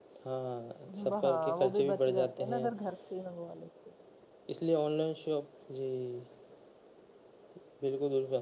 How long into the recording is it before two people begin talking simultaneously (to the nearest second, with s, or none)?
1 s